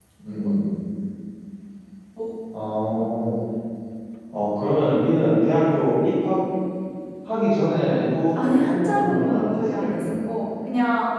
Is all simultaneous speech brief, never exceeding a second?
No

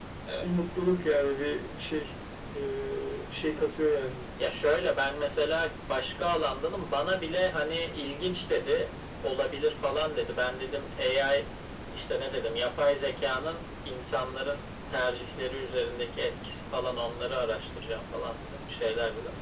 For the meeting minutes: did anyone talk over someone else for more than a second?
No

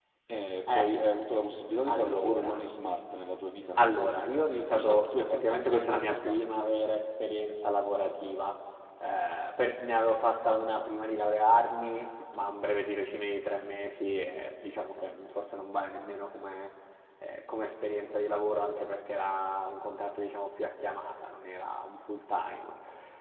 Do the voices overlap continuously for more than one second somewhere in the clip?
Yes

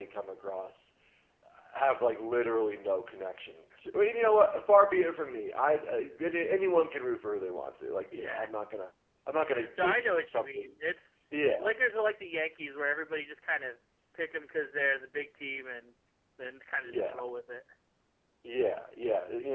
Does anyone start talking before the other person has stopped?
Yes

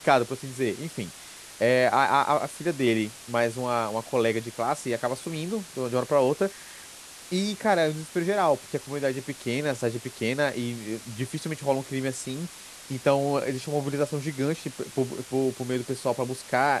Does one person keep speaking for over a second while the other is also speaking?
No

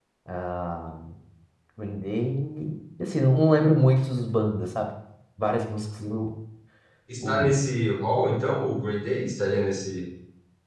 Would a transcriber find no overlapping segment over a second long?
Yes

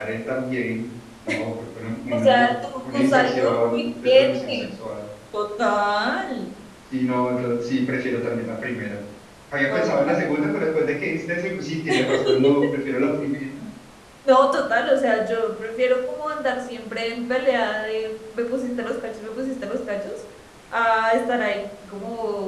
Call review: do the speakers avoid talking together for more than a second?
No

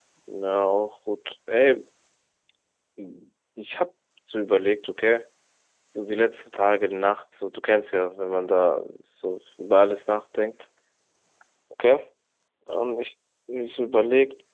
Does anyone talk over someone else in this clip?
No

